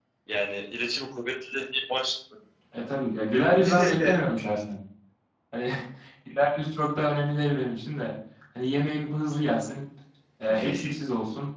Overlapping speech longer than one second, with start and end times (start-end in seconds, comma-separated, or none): none